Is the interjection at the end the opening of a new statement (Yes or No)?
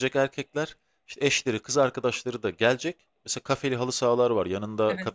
No